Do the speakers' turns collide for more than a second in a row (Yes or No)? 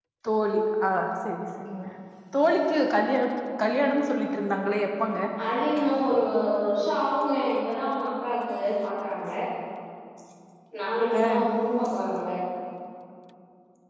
No